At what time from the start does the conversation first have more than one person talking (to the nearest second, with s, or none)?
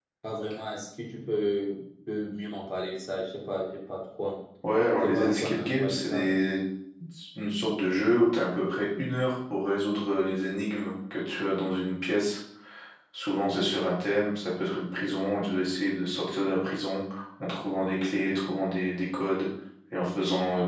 5 s